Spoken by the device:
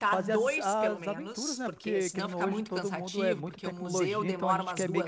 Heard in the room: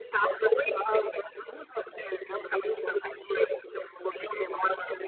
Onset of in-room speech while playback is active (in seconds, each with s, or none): none